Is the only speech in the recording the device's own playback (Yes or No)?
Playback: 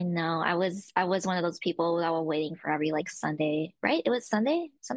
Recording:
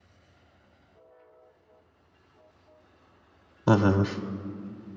No